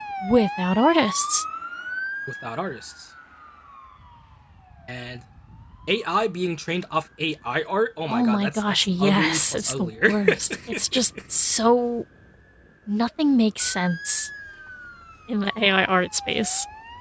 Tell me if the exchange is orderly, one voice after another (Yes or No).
No